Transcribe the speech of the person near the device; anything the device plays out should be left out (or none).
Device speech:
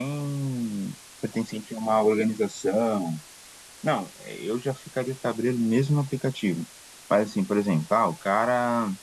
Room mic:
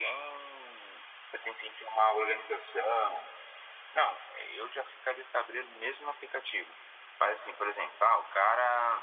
none